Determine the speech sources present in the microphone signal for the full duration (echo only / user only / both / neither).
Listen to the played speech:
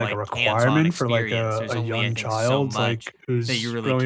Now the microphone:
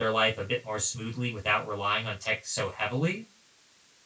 user only